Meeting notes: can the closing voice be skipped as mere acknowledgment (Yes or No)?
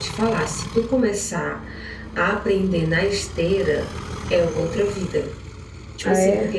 Yes